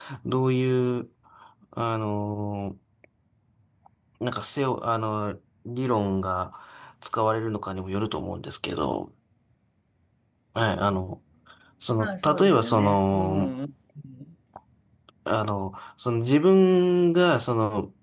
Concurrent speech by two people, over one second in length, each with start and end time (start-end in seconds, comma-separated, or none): 12.0-13.5